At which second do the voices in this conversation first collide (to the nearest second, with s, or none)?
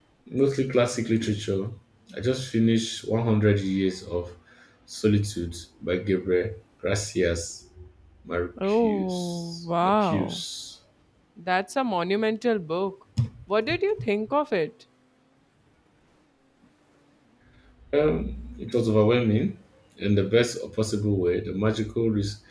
9 s